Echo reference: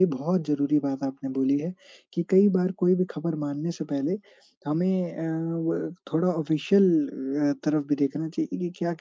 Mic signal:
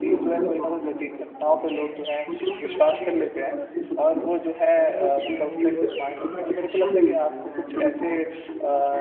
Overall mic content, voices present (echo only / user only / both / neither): both